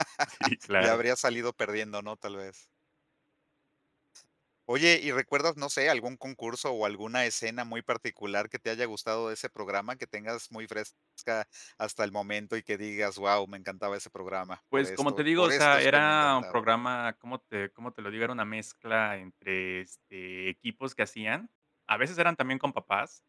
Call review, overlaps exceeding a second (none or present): present